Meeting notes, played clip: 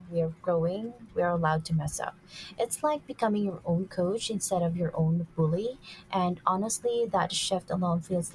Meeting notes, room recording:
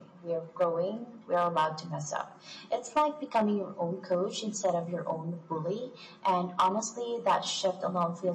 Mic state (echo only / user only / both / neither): echo only